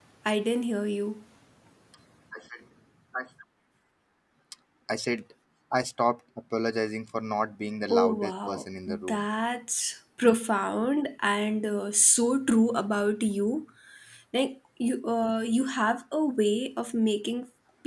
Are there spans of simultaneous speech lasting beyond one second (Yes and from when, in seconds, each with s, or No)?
Yes, from 7.9 s